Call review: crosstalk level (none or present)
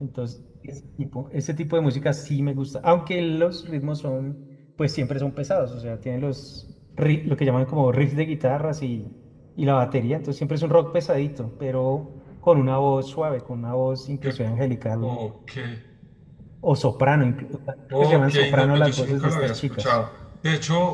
present